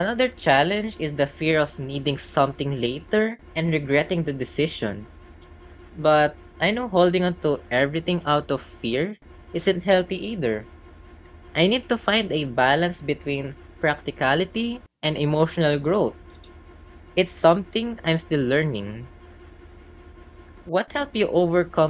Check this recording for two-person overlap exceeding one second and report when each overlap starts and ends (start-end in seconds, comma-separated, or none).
none